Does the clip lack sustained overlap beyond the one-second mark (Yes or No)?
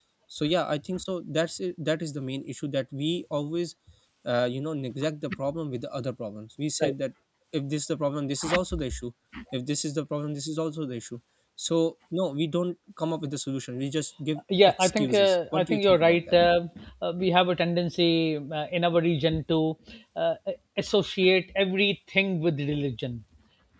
No